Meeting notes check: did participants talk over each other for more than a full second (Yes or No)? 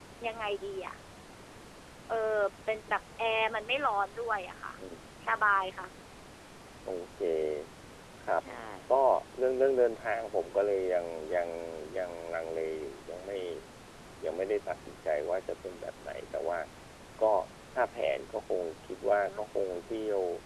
No